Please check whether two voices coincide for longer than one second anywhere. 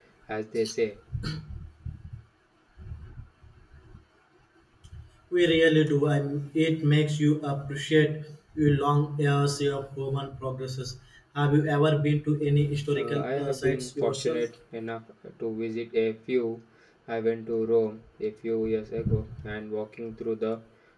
Yes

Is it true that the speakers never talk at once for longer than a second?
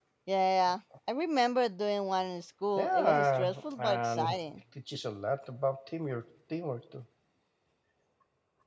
No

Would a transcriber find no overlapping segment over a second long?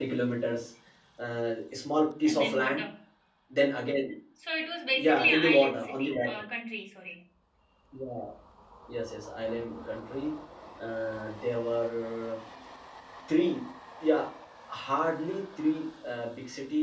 No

